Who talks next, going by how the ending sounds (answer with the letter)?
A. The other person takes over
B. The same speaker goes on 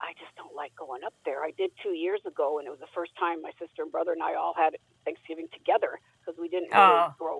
B